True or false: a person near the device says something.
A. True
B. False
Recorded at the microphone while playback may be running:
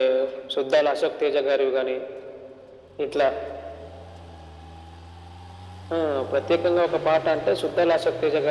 B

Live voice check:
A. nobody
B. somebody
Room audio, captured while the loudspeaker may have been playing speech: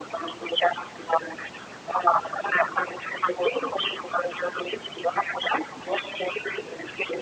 A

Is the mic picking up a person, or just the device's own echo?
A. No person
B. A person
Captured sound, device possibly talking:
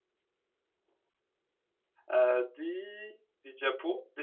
B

